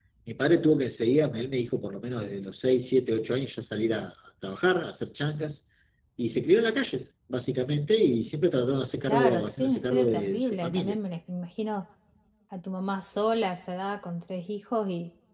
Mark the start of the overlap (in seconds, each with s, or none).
9.0 s